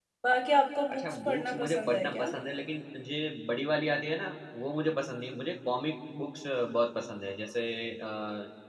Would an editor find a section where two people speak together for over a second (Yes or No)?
Yes